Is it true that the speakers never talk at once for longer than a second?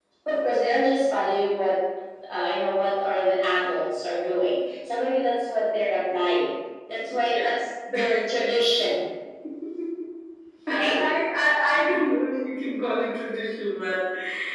Yes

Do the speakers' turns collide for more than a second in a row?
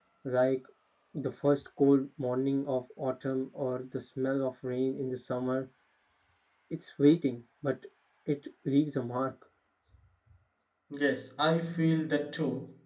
No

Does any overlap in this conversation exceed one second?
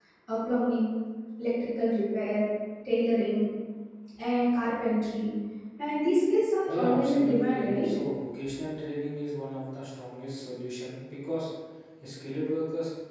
Yes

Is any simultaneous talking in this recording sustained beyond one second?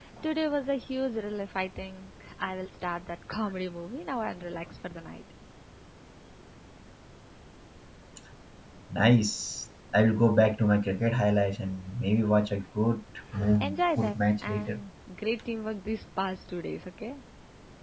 Yes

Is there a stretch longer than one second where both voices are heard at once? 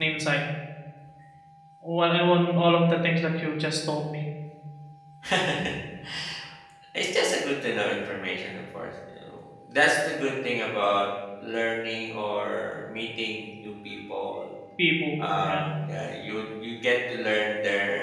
No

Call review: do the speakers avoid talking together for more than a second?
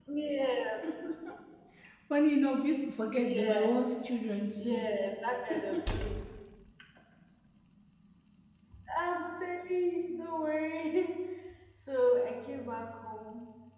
Yes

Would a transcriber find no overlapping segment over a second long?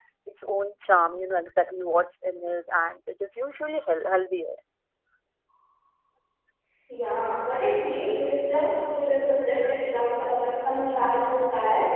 Yes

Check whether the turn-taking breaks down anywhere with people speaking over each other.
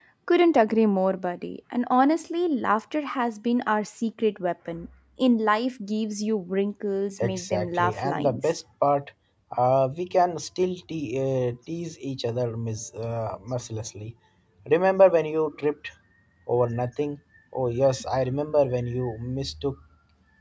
Yes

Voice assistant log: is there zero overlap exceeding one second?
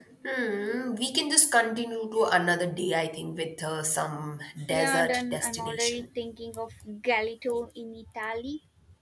No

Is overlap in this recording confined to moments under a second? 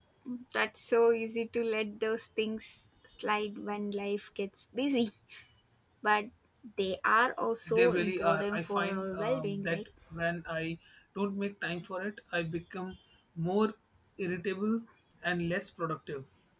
No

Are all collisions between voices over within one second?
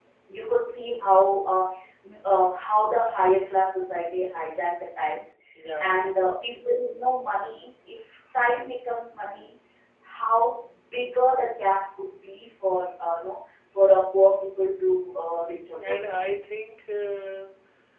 Yes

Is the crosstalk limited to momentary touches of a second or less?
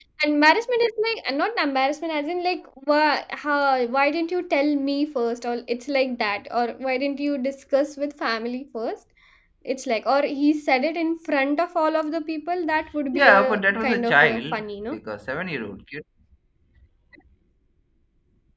No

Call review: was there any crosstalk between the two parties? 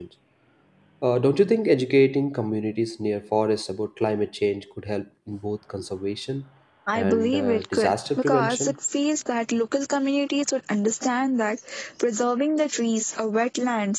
Yes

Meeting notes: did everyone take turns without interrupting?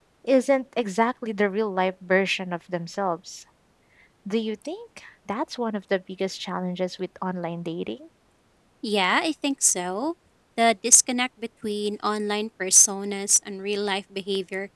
Yes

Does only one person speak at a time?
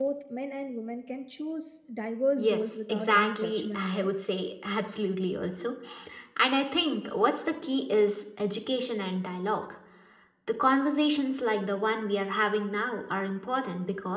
No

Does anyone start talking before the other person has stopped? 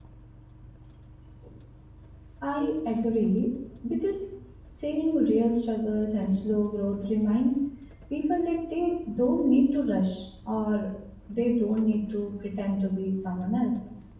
No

